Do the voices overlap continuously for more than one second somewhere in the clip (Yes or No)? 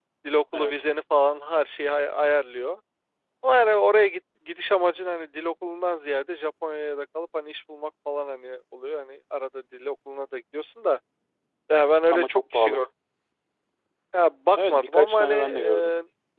Yes